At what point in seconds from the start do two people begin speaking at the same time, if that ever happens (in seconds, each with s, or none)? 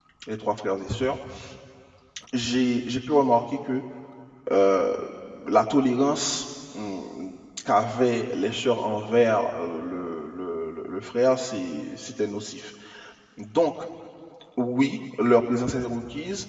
none